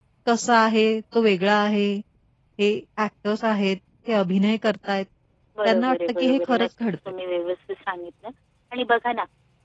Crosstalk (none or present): present